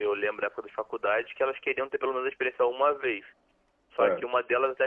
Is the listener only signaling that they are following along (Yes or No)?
Yes